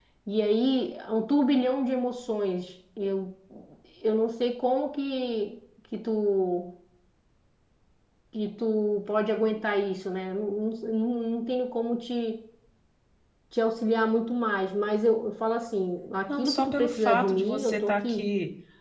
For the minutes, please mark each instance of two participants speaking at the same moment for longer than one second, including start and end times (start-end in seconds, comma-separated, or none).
16.3-18.3